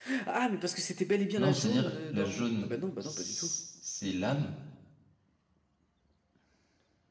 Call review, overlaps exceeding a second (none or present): present